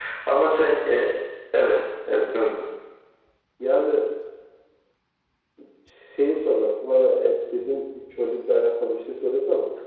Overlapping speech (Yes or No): No